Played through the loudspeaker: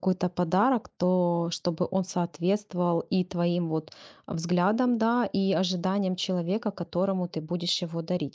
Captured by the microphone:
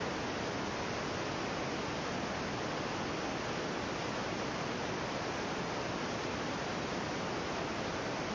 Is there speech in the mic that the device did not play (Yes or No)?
No